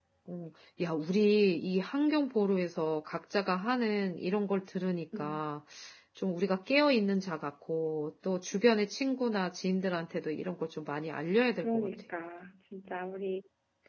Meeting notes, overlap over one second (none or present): none